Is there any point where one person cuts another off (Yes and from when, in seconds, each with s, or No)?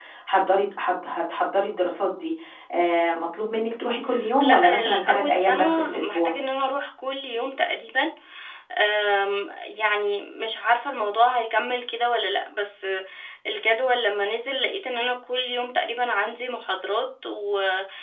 Yes, from 4.4 s